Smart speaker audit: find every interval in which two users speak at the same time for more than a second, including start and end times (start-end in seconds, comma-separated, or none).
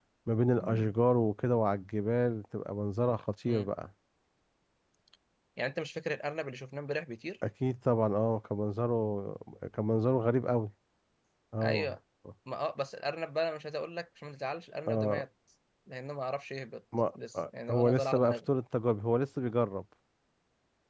17.1-18.4